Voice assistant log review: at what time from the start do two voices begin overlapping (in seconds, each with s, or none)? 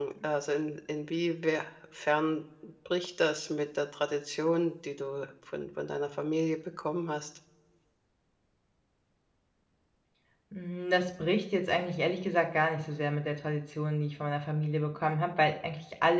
none